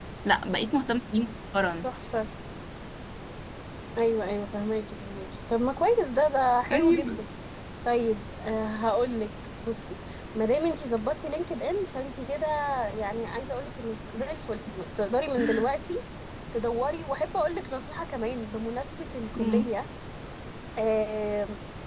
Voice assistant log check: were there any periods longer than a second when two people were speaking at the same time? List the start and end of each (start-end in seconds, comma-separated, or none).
none